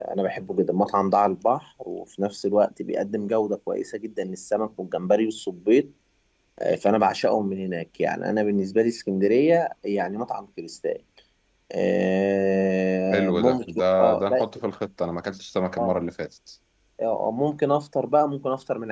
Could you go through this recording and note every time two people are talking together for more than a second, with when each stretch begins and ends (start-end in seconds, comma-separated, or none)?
13.1-14.4